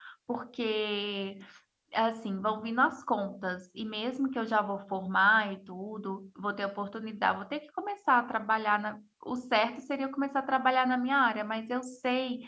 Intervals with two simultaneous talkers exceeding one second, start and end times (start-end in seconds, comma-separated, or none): none